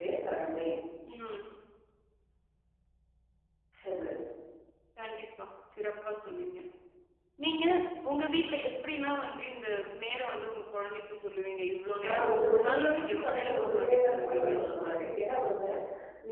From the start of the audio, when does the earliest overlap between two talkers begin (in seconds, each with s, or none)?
12.0 s